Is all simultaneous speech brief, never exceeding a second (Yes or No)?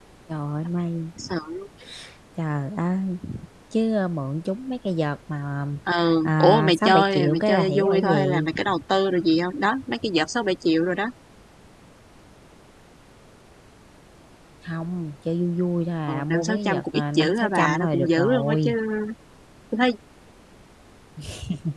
No